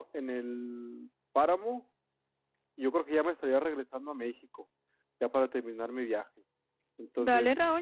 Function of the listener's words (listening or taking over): taking over